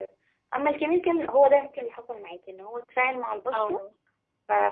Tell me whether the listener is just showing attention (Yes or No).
Yes